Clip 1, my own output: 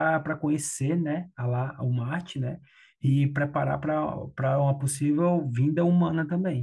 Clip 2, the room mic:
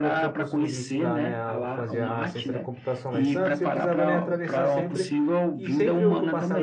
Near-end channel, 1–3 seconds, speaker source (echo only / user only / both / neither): both